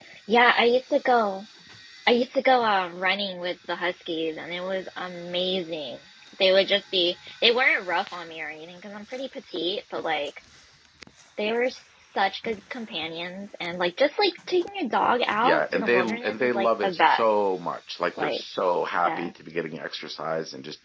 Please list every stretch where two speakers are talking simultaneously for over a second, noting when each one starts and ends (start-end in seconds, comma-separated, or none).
15.4-17.5